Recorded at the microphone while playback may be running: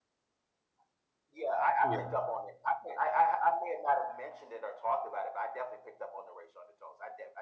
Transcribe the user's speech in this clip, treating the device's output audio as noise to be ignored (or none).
Yeah.